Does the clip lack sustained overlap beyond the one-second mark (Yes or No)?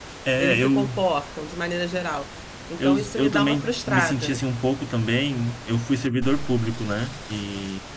No